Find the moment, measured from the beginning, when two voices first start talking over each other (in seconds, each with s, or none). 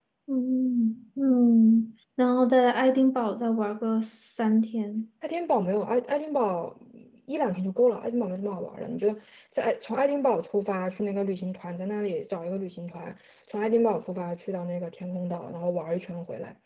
none